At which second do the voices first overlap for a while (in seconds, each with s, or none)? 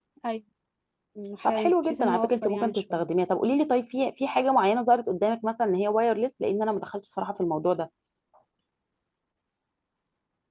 1.4 s